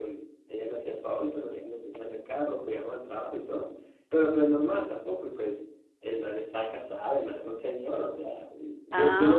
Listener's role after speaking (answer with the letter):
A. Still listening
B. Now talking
A